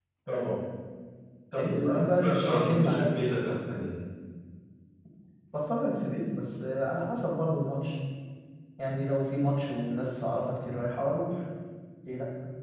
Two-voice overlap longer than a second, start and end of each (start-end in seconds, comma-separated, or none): 1.5-3.2